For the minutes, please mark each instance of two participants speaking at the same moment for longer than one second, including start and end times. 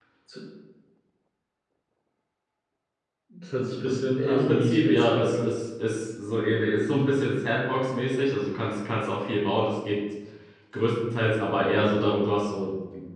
4.2-5.5

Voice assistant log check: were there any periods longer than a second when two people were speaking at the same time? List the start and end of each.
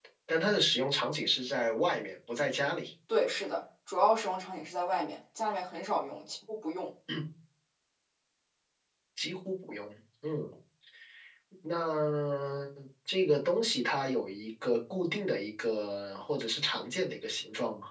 none

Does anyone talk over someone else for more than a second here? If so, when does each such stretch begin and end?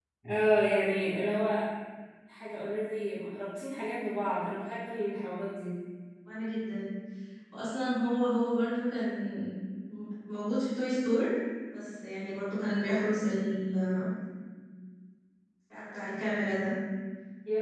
none

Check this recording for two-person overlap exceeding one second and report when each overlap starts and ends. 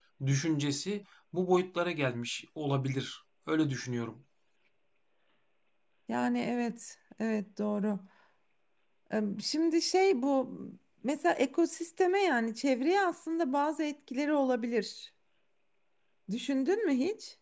none

